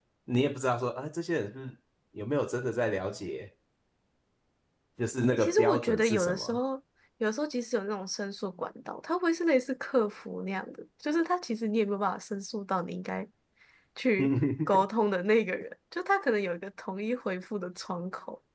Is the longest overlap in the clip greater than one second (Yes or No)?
Yes